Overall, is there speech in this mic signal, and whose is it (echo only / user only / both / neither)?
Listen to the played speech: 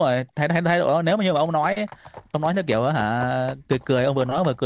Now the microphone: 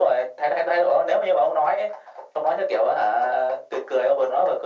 echo only